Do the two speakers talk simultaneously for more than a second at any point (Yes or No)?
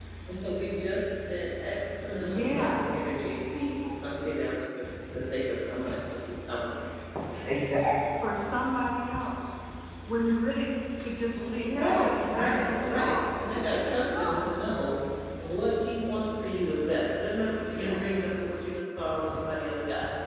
Yes